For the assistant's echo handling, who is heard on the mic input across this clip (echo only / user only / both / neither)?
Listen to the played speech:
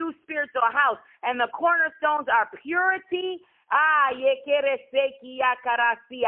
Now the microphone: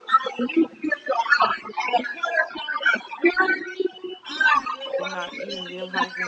both